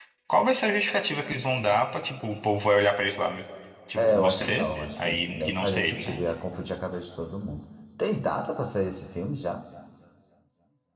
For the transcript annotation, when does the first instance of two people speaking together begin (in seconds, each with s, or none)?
4.0 s